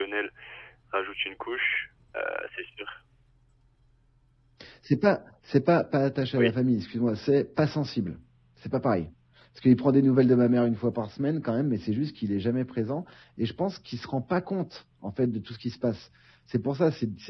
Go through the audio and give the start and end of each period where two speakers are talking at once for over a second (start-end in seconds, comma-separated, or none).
none